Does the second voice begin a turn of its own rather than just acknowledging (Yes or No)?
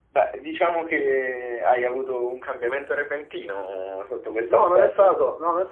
Yes